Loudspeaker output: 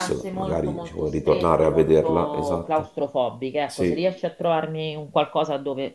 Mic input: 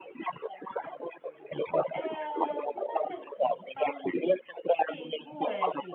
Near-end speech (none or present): present